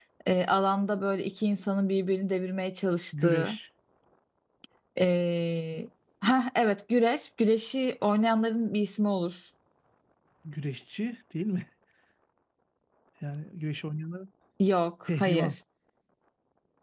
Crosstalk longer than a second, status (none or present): none